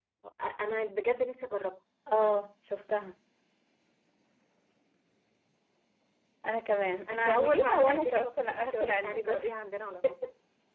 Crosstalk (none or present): present